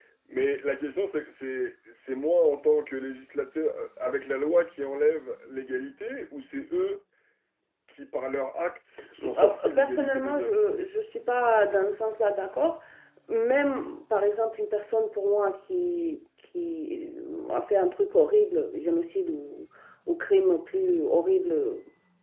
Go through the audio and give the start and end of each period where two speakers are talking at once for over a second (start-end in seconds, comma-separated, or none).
9.2-10.6